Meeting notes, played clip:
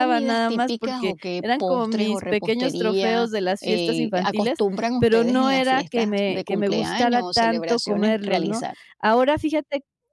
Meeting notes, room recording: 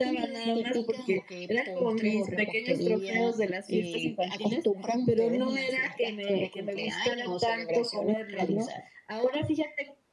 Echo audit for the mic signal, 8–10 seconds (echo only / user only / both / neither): echo only